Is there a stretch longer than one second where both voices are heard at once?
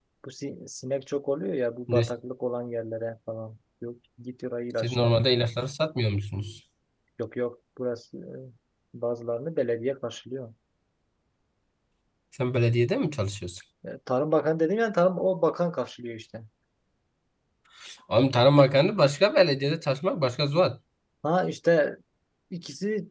No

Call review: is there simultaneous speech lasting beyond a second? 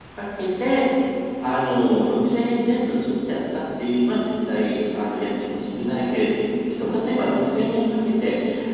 No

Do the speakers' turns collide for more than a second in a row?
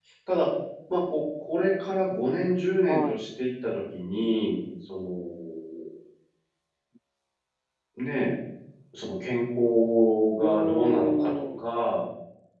Yes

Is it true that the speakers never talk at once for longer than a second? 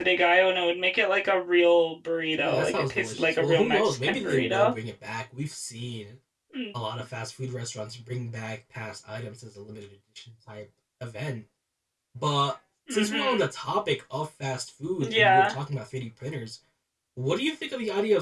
No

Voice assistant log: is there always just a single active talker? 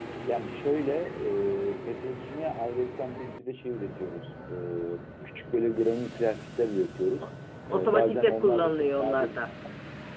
No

